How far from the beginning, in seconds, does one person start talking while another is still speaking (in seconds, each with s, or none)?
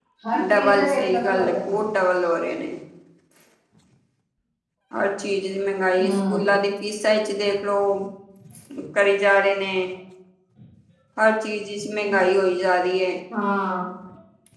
0.5 s